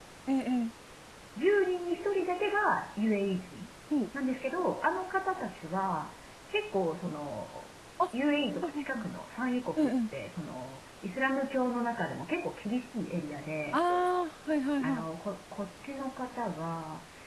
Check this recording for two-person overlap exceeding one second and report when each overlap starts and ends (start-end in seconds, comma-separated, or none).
none